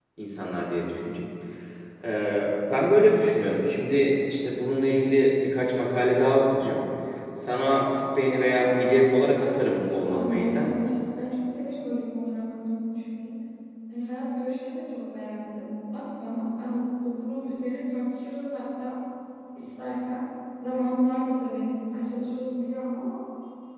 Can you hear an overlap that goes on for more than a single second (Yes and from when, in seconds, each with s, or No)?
Yes, from 8.2 s